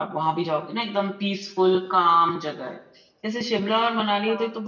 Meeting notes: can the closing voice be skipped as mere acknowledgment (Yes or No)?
Yes